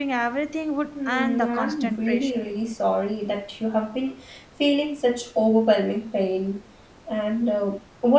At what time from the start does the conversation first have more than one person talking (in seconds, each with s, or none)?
1.1 s